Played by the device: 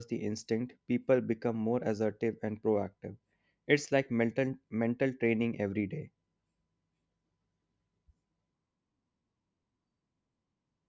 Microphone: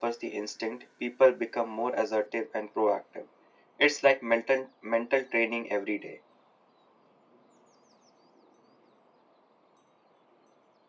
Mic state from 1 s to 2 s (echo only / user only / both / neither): echo only